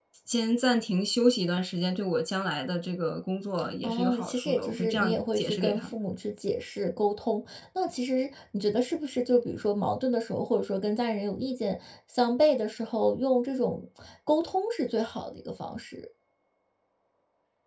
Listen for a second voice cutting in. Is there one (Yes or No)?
Yes